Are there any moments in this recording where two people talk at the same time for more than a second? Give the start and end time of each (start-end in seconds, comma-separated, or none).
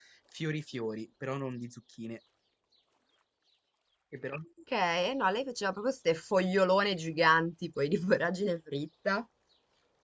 none